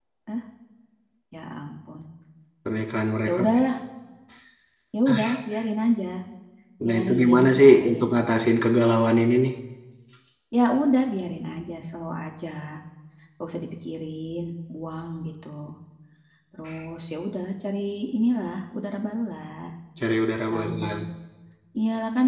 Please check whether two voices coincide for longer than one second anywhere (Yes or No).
Yes